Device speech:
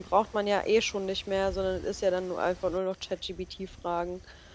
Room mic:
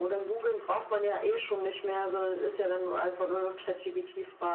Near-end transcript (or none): none